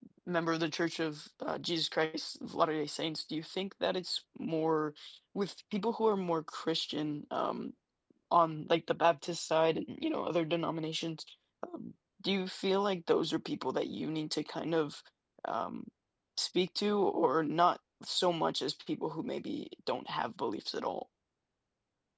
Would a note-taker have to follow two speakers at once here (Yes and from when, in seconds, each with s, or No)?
No